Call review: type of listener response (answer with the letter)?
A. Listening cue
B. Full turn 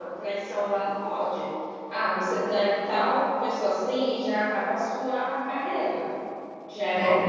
A